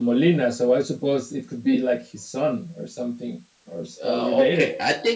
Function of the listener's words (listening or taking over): taking over